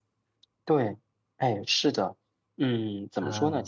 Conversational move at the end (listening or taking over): listening